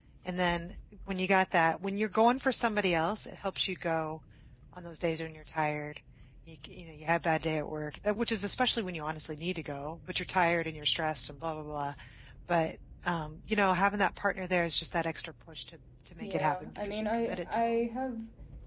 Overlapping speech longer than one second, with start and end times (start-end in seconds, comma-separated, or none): 16.2-17.7